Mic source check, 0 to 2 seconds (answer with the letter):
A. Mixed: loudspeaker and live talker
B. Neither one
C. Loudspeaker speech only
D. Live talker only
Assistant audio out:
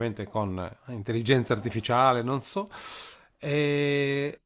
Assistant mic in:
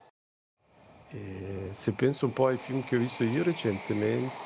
D